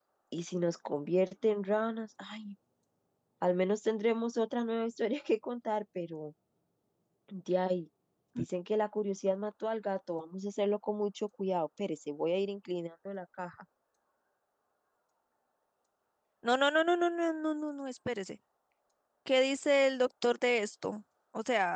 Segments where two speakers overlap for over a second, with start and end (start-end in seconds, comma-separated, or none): none